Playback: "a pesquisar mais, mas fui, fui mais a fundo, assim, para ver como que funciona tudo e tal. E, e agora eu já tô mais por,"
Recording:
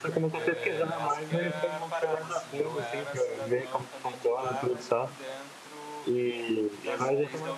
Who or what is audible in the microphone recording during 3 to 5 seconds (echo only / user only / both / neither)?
both